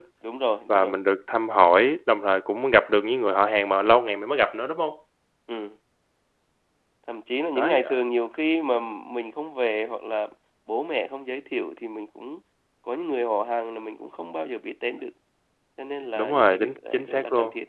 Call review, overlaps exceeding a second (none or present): present